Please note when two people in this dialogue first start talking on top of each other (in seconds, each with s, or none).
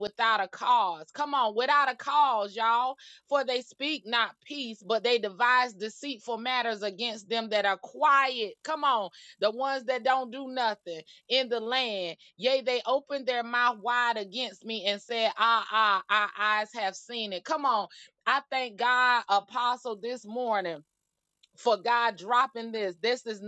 none